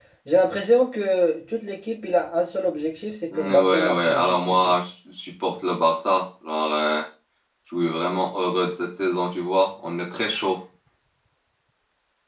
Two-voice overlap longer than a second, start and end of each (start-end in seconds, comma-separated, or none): 3.3-4.8